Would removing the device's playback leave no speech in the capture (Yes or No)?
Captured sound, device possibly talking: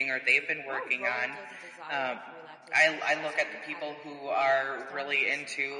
No